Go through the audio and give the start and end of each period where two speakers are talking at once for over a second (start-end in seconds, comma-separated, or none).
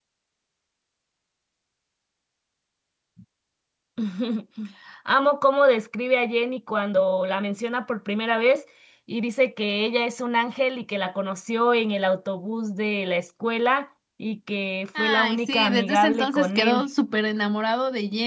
15.0-16.8